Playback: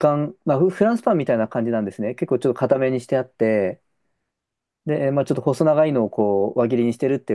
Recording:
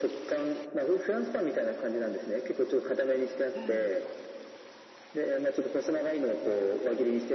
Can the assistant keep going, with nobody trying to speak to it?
No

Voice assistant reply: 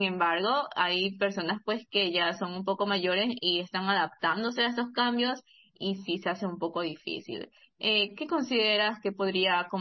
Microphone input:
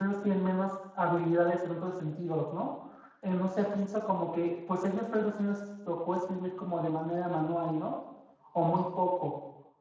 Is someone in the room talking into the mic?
Yes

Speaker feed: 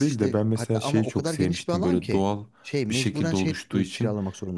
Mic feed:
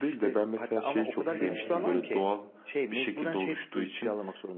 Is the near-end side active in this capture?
Yes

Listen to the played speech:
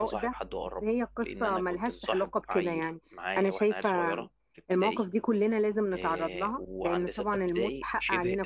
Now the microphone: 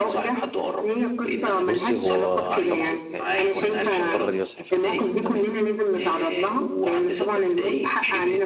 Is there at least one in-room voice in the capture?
Yes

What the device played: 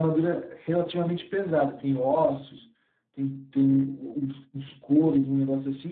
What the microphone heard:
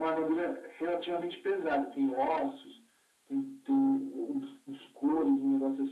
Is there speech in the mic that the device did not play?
No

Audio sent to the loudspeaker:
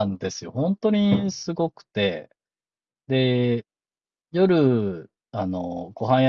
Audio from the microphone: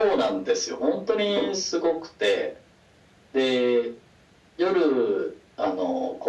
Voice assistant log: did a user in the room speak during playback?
No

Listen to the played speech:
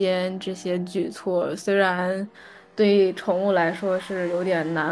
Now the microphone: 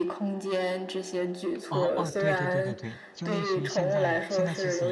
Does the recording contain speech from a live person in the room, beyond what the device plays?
Yes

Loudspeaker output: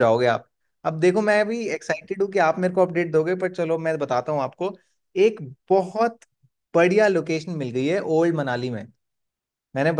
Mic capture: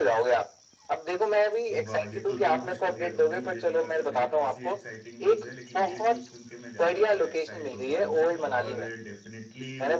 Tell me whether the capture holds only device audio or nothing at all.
No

